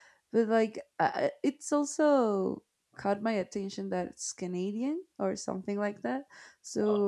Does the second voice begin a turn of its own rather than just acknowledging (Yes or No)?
No